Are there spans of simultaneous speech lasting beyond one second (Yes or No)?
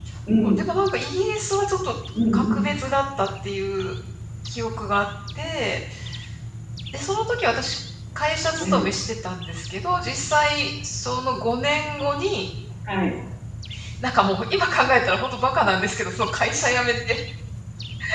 No